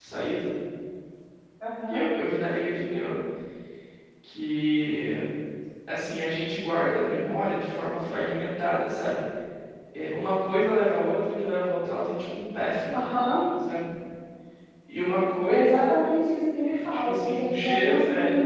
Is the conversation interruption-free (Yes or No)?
No